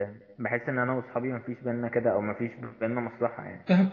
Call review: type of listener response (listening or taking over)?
taking over